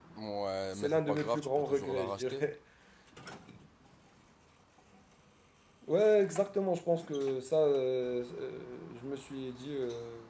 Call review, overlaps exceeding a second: present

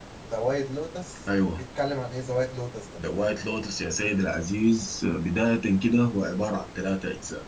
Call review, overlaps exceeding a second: none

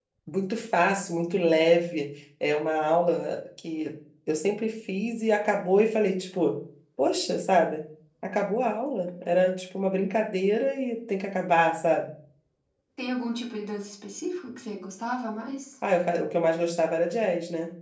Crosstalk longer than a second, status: none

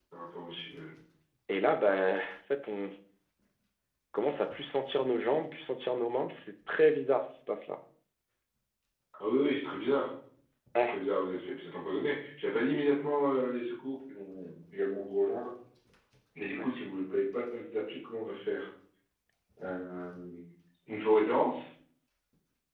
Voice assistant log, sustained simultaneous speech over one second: none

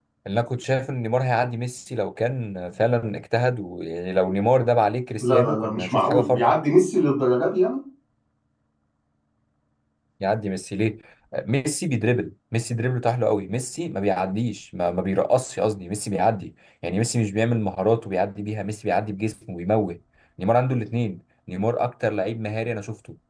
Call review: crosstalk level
present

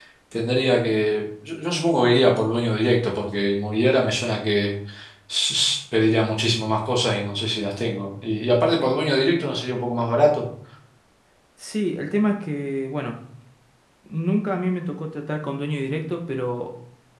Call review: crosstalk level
none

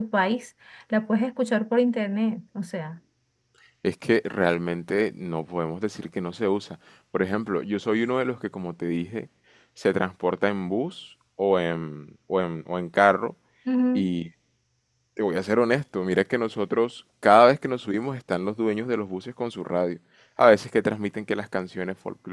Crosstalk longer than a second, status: none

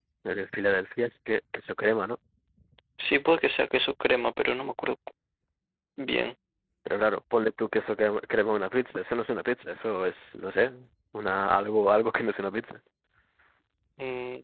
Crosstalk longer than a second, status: none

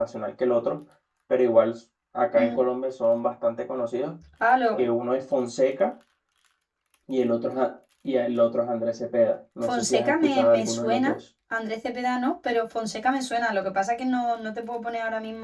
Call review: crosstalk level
present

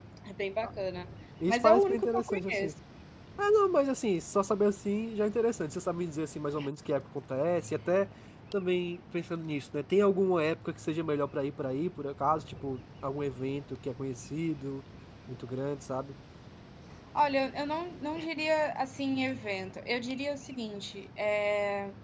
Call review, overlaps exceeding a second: present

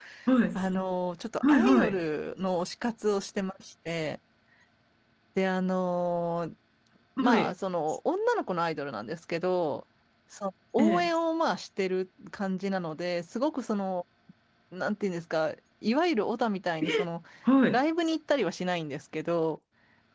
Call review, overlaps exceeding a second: none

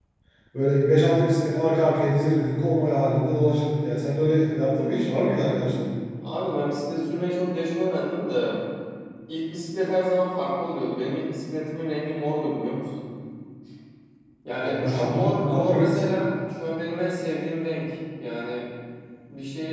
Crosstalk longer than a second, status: present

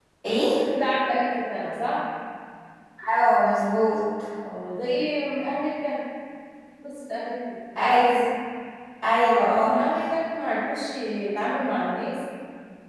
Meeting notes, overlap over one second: none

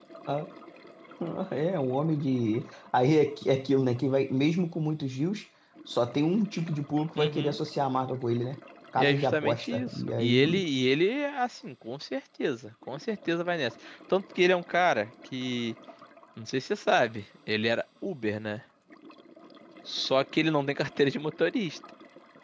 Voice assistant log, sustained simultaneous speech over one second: present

